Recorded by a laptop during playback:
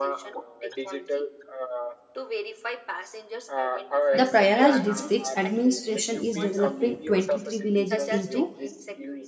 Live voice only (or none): The Prayaraj district's administration is developing 23 villages into